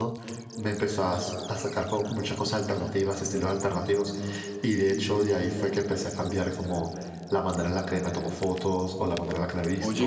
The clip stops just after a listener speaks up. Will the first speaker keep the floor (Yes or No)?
Yes